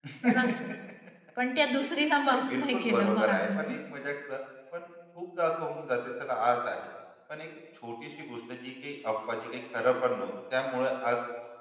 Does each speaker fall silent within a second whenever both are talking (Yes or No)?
No